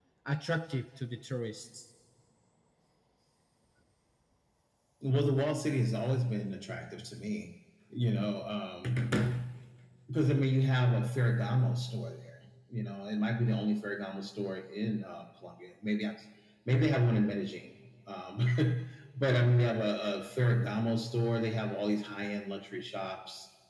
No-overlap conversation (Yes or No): Yes